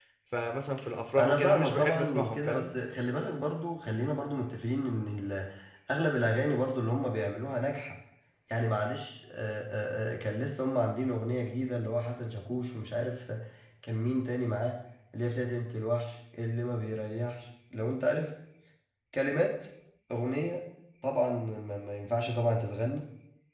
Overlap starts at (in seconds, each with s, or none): 1.2 s